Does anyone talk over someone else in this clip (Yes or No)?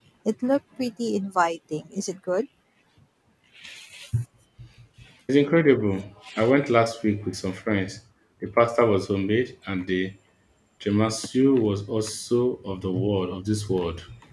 No